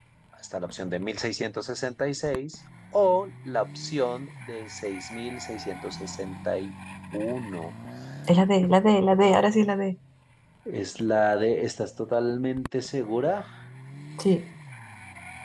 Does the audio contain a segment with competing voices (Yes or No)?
No